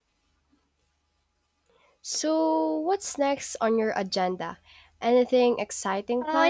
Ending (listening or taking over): taking over